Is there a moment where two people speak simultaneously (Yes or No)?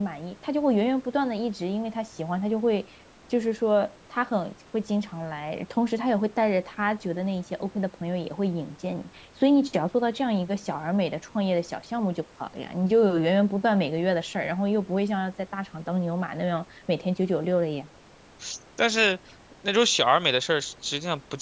No